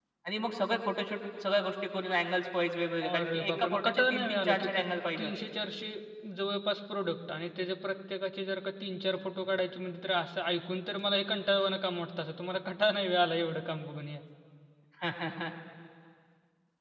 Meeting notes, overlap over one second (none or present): present